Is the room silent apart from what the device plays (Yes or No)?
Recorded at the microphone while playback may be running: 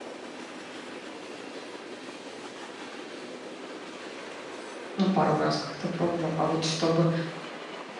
No